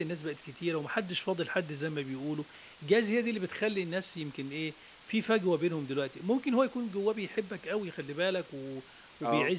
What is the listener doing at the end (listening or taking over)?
listening